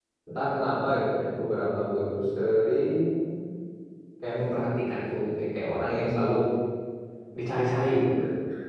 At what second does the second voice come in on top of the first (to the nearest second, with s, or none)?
none